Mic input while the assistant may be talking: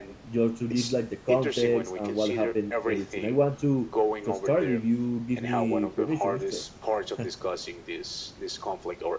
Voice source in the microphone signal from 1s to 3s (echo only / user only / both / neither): both